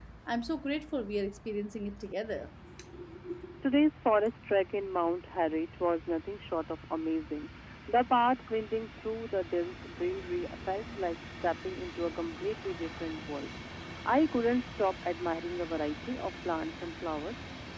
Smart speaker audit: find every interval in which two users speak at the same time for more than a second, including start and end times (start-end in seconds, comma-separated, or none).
none